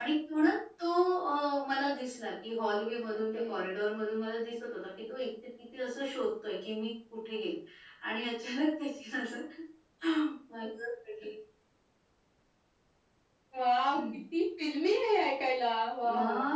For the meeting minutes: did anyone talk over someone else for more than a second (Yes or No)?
No